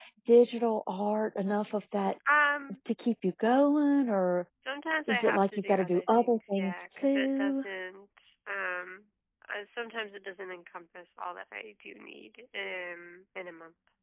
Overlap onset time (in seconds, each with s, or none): 5.1 s